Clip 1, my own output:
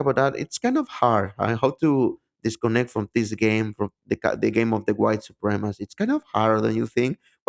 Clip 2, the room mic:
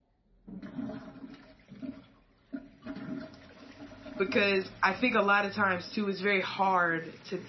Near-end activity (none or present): present